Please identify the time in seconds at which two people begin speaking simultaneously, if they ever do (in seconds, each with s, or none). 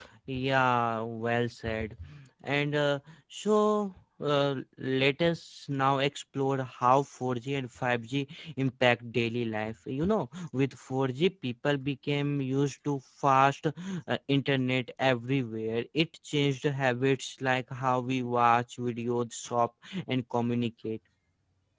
none